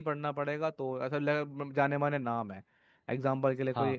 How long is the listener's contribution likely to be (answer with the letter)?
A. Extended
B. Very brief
B